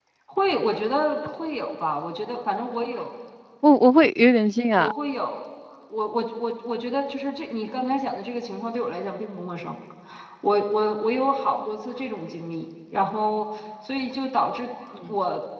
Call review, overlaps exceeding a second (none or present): none